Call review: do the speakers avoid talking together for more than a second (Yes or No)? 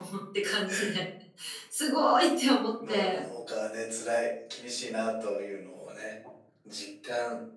Yes